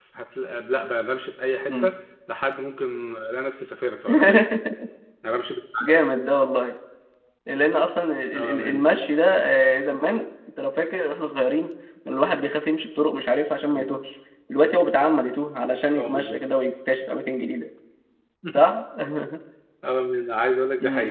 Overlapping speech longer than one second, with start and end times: none

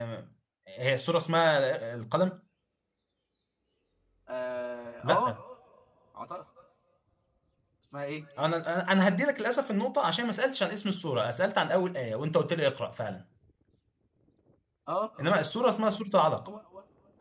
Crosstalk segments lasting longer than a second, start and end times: none

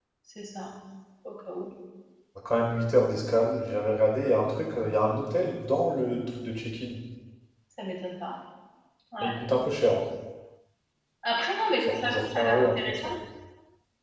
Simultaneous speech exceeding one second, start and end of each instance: 11.8-13.1

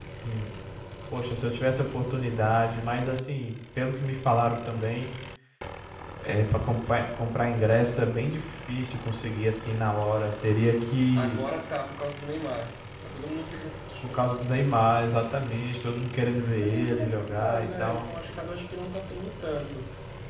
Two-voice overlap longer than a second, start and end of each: 16.6-18.0

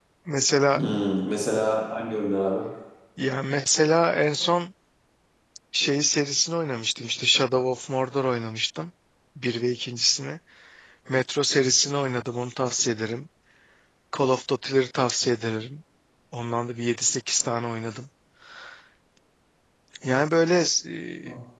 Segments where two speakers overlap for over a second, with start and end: none

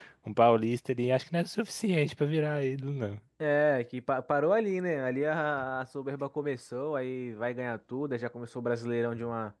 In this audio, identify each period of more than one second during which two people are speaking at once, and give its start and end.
none

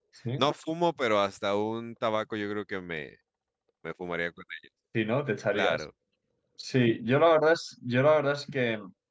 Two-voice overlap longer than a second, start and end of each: none

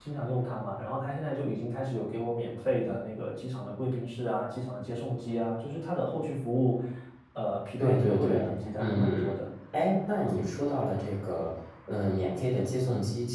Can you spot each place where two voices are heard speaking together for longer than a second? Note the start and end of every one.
7.8-9.2

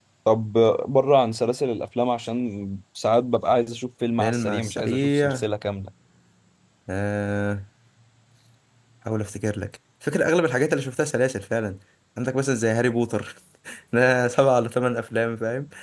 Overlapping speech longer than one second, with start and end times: 4.2-5.5

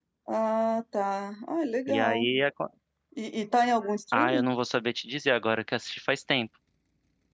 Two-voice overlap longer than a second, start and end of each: none

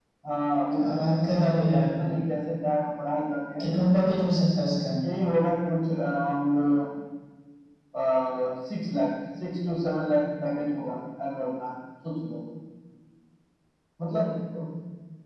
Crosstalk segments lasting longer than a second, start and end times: 0.7-1.9

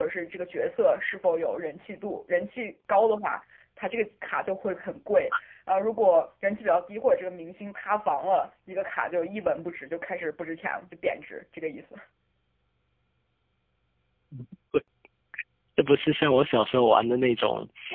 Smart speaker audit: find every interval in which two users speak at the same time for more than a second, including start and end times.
none

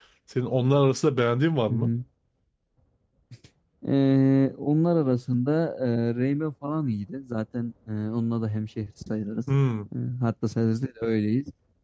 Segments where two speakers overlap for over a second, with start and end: none

